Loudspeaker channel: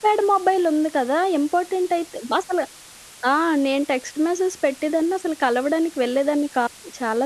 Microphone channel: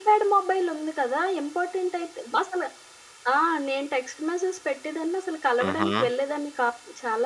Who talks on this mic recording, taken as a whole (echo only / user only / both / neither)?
both